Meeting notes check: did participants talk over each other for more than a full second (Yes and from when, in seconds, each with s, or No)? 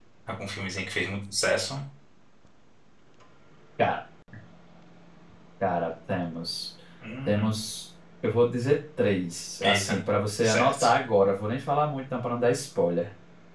No